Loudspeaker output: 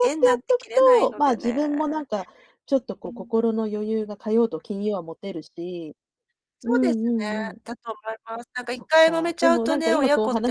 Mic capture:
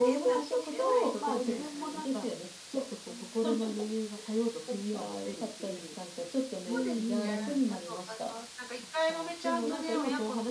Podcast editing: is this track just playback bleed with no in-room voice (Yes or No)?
No